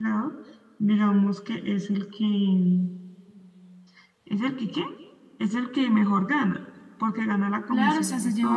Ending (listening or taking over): taking over